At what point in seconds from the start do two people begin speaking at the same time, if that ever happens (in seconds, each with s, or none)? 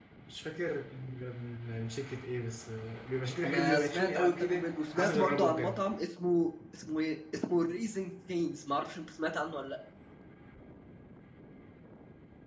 3.4 s